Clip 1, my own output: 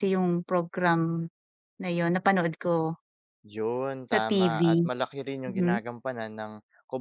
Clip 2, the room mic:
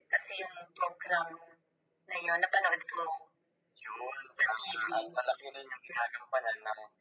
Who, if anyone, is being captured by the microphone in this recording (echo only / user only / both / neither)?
echo only